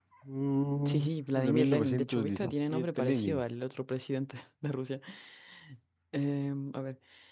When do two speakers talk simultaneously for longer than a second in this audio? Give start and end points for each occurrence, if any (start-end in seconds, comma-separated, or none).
1.4-3.4